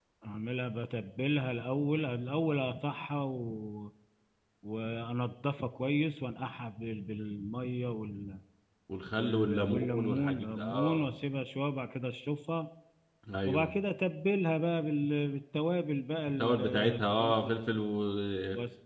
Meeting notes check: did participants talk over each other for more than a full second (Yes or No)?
Yes